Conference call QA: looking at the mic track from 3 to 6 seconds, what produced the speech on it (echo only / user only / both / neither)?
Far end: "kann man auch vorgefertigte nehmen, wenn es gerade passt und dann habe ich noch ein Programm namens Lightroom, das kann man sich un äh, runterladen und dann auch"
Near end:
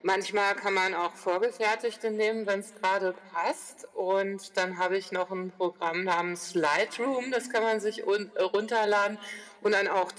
echo only